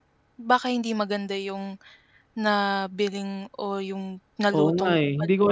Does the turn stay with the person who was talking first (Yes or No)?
No